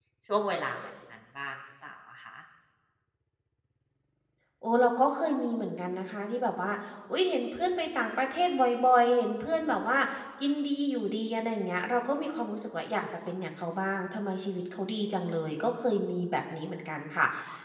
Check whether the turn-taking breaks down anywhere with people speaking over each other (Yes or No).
No